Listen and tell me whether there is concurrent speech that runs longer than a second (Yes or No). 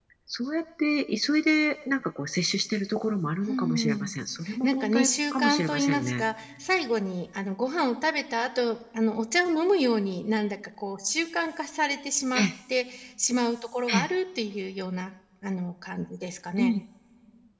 Yes